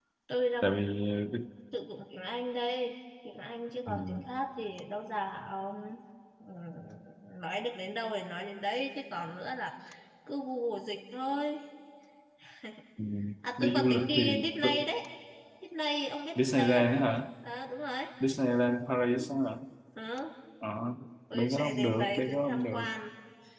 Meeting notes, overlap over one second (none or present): present